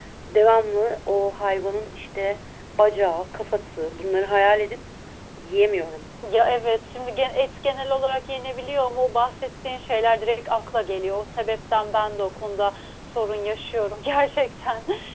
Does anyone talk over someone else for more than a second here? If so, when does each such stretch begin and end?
none

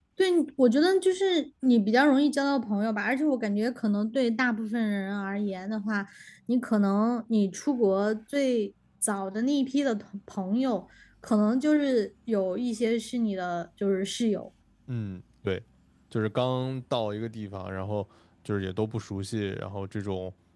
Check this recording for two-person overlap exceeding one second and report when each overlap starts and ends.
none

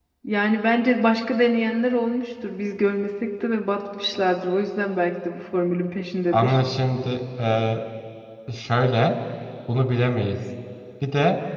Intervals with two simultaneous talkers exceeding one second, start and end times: none

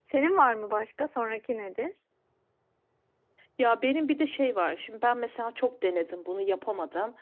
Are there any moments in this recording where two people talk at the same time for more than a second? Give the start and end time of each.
none

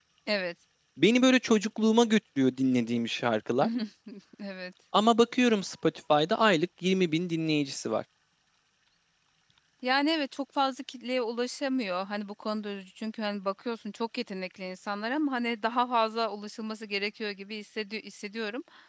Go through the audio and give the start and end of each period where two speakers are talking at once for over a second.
none

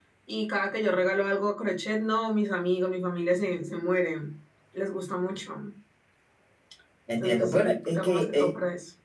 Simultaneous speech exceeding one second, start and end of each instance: 7.2-8.6

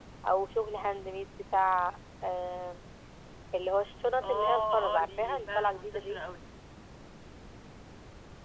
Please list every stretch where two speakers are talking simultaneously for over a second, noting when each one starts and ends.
4.2-6.2

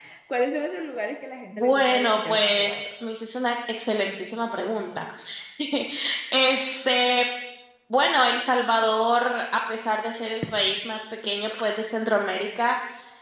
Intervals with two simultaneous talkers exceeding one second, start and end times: 1.5-2.9

